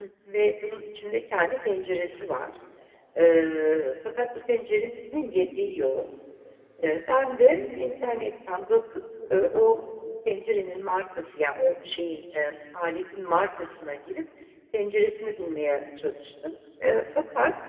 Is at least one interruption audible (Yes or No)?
No